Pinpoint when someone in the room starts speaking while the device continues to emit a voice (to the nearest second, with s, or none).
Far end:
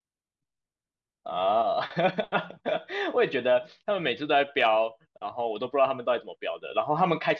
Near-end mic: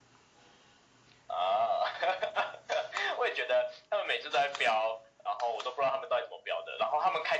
none